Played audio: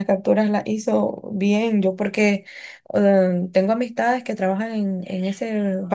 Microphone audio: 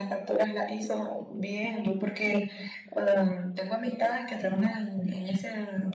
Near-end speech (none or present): none